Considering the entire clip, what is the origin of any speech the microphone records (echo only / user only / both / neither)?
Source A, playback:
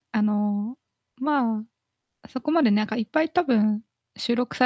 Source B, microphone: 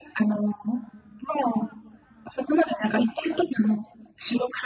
echo only